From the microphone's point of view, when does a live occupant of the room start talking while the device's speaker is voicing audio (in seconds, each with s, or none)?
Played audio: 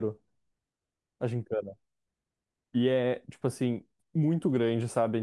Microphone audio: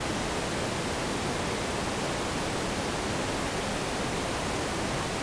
none